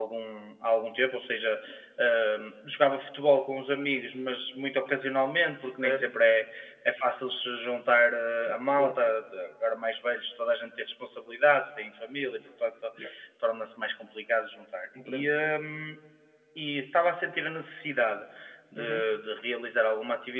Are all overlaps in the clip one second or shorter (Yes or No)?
Yes